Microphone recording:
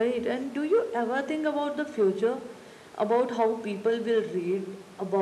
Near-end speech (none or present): none